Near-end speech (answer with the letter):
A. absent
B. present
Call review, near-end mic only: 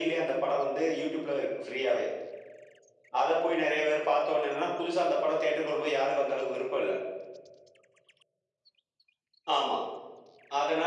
A